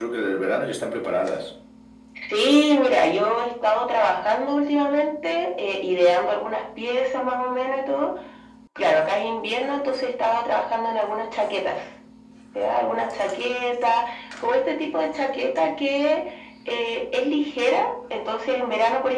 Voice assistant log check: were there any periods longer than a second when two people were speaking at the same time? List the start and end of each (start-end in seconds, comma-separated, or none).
none